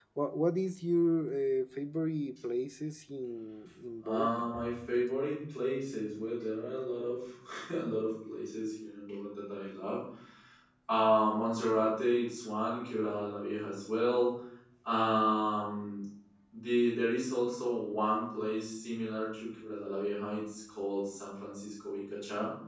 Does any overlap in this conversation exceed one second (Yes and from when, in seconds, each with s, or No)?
No